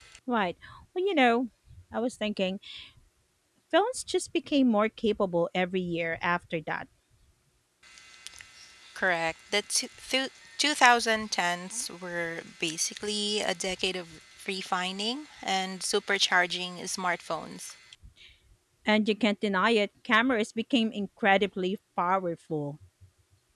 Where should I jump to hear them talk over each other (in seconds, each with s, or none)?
none